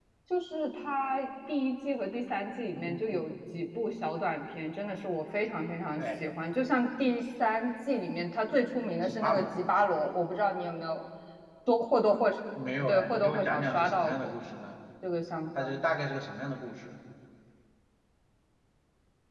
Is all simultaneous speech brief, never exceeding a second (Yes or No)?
No